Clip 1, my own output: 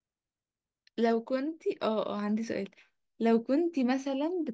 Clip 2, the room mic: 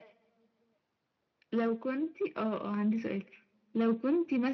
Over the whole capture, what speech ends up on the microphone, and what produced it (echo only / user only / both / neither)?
echo only